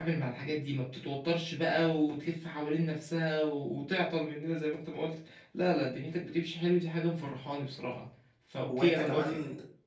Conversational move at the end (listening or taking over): taking over